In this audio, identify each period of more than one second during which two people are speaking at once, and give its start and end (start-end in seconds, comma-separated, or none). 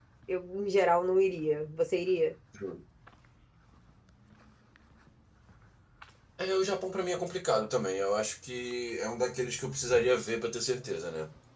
none